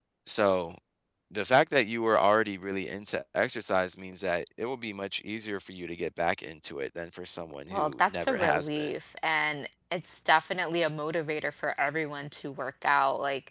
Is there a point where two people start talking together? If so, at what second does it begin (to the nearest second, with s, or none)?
8 s